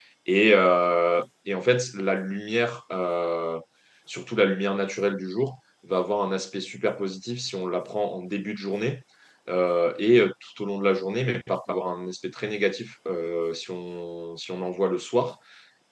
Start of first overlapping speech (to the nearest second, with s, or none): none